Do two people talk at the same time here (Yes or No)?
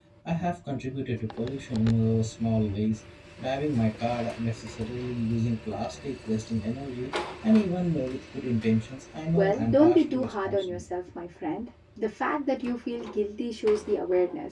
Yes